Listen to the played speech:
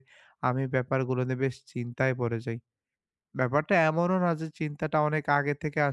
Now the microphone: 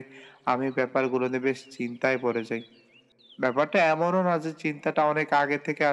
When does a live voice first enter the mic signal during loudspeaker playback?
none

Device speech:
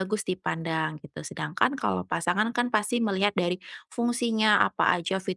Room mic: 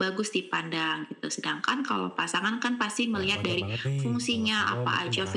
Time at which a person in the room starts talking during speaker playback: 3 s

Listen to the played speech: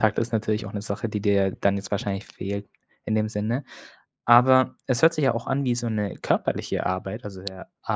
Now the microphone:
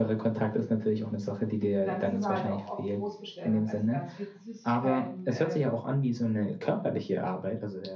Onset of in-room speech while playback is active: 2 s

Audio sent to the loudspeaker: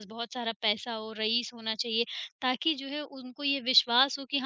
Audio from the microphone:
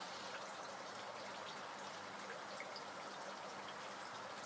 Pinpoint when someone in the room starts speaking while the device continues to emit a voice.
none

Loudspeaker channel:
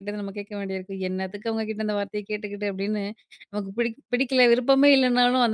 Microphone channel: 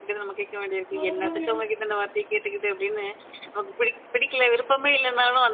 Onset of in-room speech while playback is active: 1 s

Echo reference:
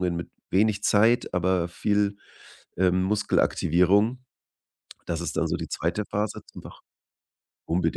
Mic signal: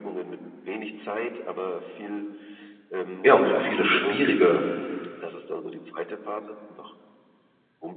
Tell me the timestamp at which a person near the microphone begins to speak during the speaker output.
3 s

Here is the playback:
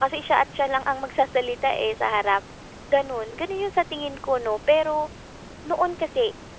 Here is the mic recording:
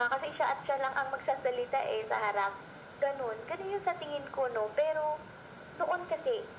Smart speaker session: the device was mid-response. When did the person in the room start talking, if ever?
none

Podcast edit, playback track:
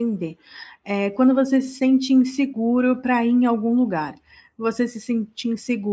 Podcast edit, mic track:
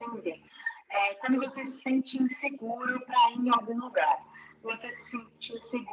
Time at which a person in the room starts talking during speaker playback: none

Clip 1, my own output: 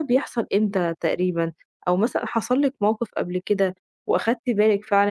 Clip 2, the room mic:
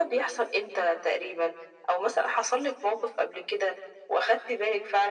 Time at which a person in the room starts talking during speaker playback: none

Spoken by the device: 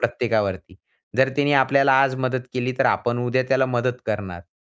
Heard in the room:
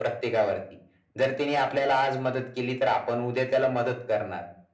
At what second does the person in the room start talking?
none

